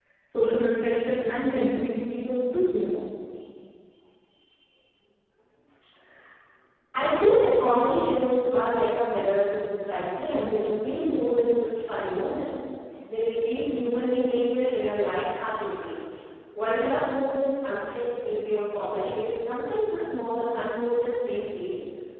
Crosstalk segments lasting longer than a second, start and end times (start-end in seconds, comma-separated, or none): none